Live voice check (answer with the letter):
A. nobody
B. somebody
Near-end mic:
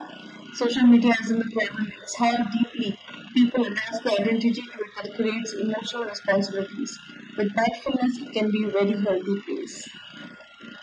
A